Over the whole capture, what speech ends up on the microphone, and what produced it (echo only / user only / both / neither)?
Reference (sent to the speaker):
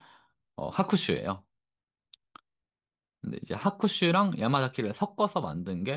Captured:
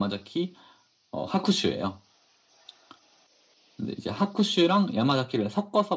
echo only